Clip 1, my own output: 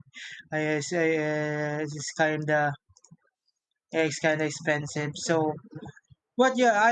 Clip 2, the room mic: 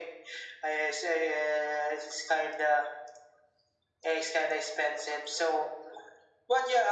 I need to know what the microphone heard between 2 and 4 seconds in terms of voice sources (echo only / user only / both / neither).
echo only